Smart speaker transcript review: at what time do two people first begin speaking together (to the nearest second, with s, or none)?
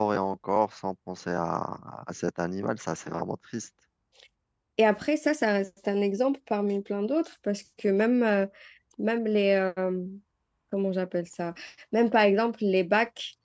none